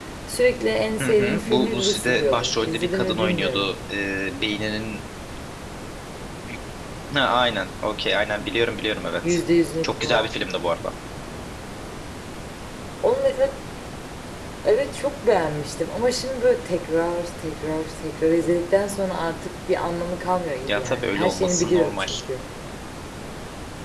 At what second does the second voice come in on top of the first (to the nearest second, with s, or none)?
1 s